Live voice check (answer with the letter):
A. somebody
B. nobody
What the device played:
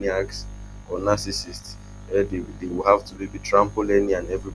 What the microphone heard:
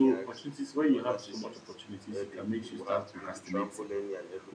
A